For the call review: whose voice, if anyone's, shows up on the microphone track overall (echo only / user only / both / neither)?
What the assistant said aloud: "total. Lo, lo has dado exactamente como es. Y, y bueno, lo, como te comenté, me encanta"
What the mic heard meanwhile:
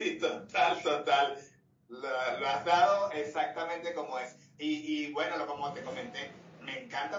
echo only